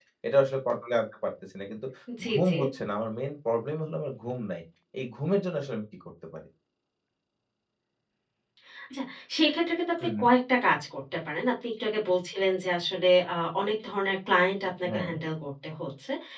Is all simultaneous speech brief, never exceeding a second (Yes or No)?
Yes